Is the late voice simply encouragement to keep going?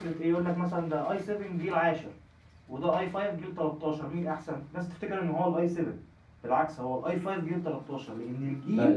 No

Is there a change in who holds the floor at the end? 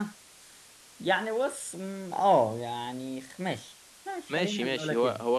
Yes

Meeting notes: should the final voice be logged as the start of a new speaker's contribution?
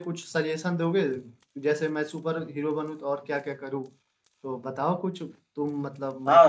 Yes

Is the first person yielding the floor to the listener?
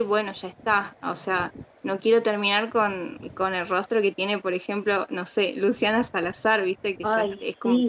Yes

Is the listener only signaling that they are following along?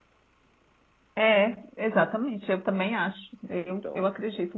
Yes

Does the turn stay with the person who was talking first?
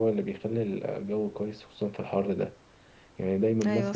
Yes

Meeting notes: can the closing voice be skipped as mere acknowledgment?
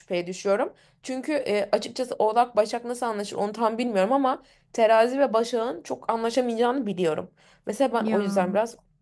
Yes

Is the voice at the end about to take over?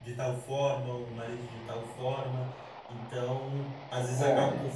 No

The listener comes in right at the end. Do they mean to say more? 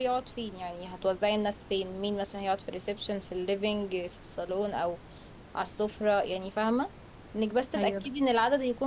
No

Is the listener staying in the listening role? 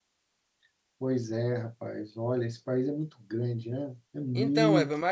No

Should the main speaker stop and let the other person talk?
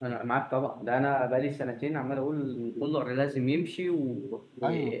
Yes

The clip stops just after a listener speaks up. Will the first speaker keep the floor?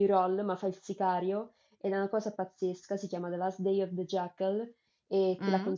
No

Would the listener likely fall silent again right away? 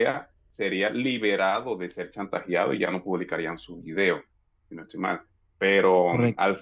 Yes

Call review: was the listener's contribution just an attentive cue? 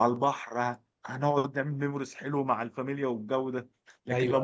Yes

